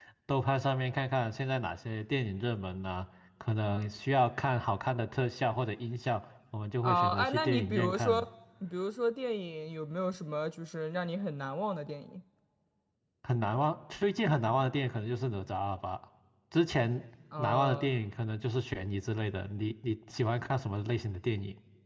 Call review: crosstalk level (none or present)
present